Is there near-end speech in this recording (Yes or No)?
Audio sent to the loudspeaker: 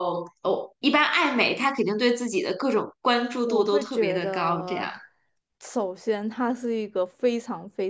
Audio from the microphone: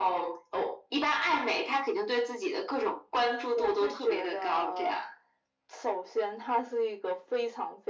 No